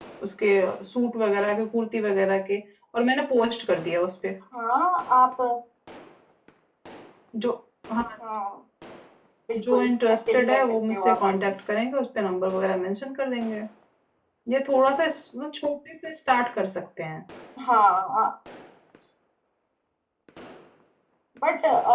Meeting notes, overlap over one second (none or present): present